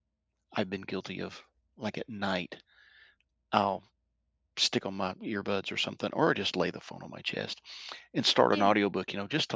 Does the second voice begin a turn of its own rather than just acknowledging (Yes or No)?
No